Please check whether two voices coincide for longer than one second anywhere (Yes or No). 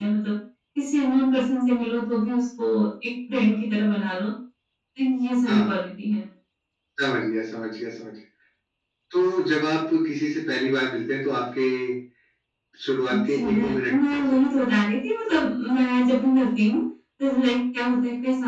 Yes